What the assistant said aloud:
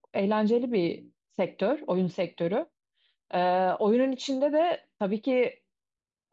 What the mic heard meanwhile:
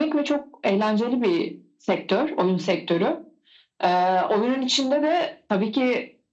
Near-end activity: none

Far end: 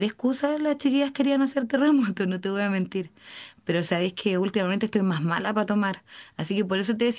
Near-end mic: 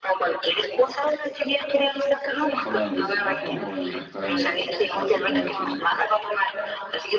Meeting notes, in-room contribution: present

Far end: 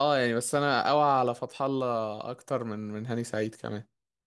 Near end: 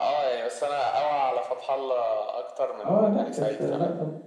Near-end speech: present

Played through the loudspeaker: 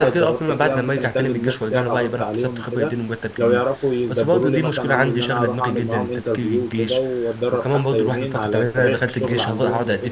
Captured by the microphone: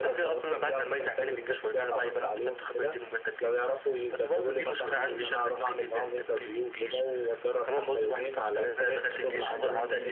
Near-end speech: present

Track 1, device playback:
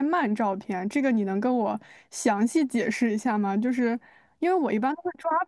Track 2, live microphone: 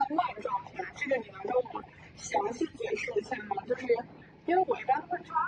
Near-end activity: none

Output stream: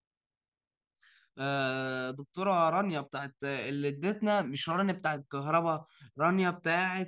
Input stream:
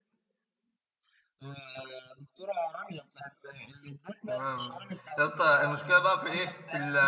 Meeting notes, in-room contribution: present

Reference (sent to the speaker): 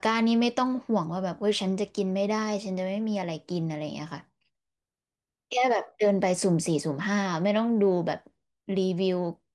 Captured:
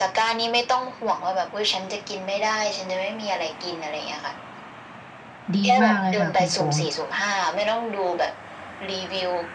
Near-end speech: present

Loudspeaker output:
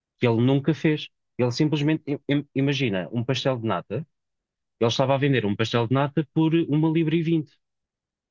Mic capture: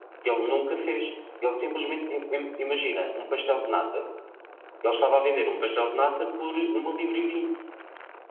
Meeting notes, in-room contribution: none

